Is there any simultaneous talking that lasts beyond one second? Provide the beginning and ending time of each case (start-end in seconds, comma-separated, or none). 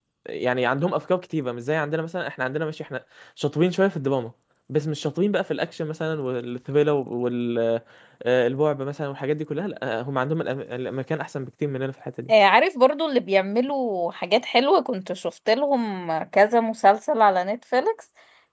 none